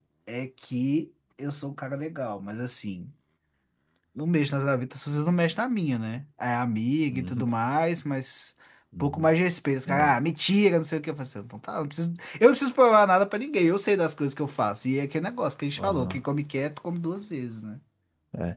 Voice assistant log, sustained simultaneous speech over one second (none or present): none